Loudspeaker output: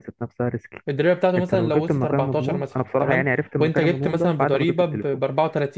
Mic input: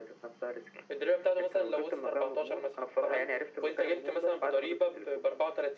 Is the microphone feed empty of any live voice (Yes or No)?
Yes